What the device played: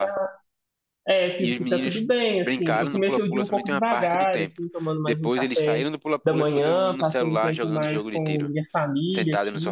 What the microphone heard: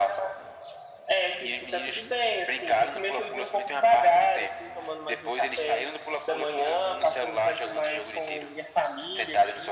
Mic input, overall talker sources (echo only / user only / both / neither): echo only